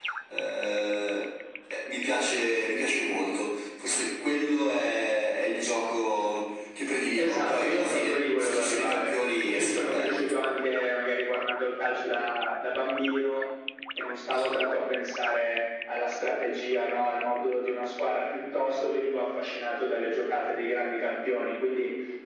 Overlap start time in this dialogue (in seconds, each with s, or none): 7.2 s